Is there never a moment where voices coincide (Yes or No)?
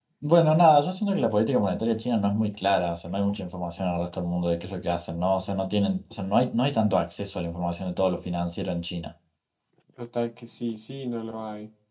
Yes